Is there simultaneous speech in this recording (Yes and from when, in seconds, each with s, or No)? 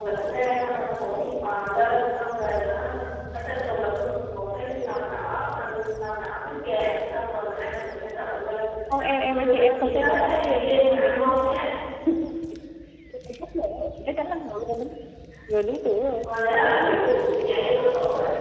Yes, from 9.0 s